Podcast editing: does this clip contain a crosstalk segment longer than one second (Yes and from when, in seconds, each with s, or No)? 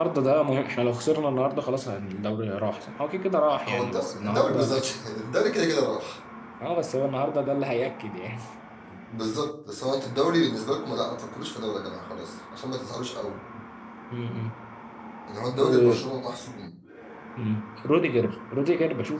Yes, from 3.7 s